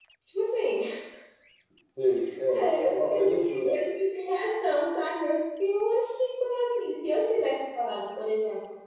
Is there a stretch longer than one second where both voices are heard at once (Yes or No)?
Yes